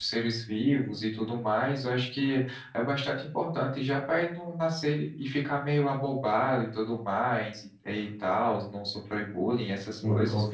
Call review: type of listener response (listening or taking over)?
taking over